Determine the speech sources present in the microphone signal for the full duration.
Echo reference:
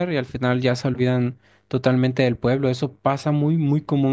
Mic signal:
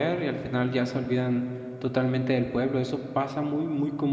echo only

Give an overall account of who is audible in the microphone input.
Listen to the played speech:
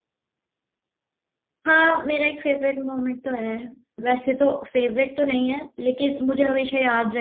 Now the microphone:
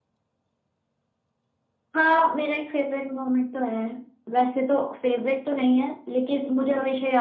echo only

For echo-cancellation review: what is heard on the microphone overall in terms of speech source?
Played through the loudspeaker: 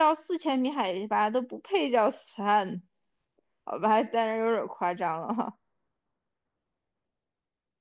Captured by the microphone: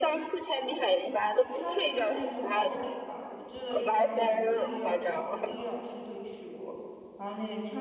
both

